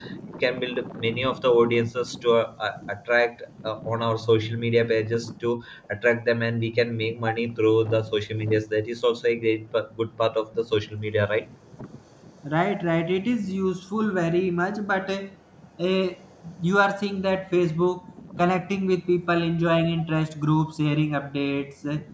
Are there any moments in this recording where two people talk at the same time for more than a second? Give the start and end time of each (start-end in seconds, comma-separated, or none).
none